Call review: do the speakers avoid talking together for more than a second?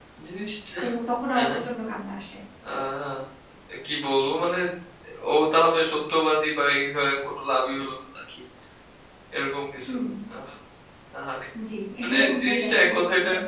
No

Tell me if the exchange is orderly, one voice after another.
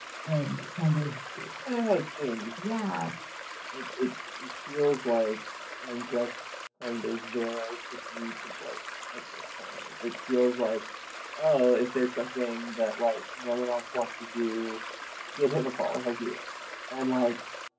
Yes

